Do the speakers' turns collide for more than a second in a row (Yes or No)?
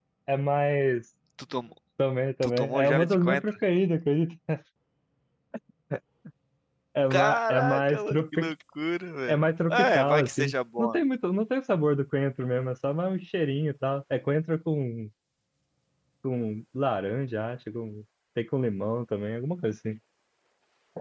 Yes